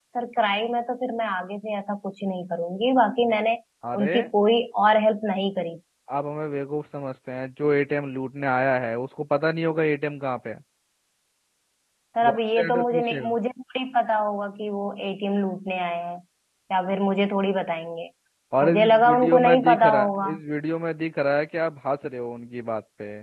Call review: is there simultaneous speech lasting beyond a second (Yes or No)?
Yes